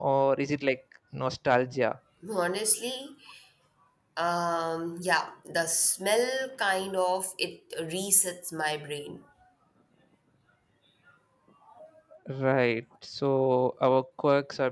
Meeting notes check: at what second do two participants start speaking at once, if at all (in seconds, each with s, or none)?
none